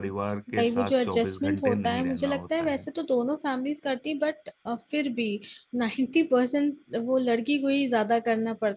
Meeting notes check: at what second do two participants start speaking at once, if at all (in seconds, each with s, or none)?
0.5 s